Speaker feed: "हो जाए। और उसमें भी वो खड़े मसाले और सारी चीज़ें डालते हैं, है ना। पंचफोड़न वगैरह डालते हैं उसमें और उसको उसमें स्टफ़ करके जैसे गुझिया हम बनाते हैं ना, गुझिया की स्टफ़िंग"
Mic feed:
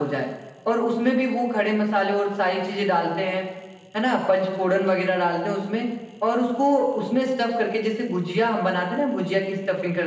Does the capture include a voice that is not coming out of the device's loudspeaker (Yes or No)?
No